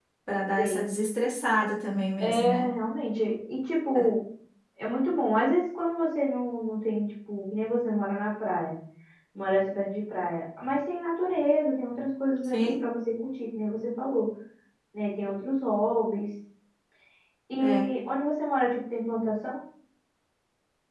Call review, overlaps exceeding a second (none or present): none